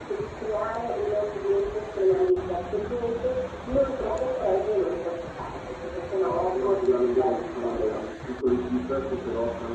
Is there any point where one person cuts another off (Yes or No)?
Yes